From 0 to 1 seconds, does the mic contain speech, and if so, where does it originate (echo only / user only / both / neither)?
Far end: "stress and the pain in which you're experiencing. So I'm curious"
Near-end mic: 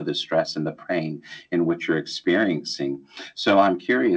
echo only